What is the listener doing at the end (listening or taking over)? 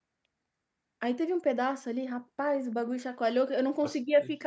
listening